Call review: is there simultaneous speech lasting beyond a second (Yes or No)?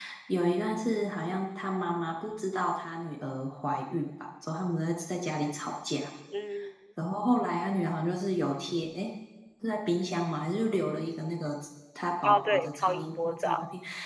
Yes